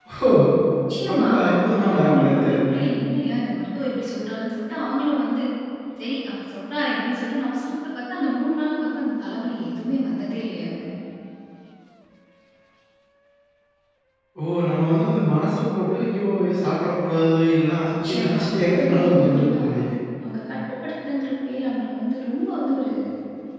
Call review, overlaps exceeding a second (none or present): present